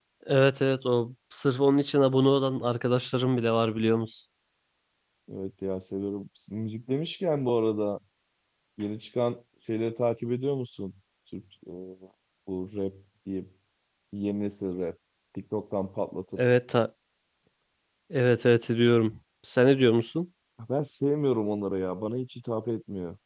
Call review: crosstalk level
none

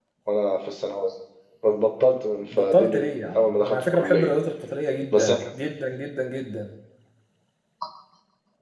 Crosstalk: present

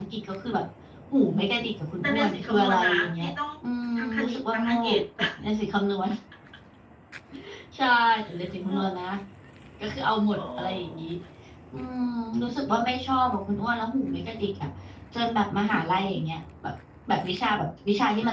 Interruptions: present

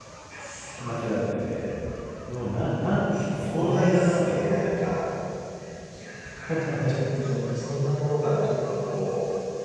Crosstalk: present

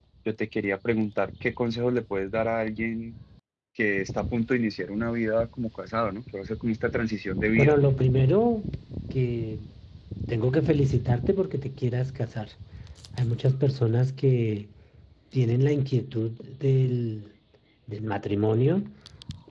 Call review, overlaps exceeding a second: none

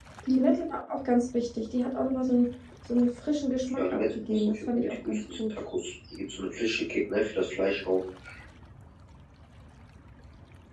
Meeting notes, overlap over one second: present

